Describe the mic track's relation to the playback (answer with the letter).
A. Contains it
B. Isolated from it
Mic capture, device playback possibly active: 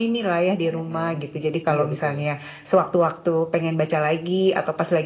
A